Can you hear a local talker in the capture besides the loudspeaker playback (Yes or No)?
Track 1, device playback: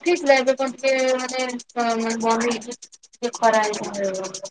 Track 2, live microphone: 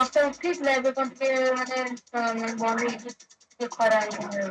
No